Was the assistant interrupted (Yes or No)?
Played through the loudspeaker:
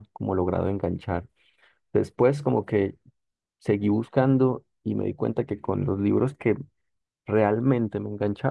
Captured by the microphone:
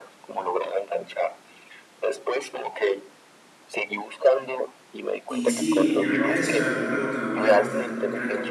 Yes